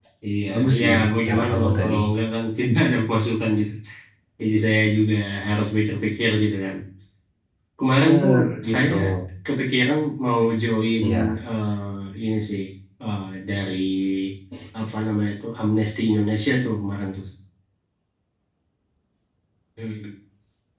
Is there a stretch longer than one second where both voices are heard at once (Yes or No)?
Yes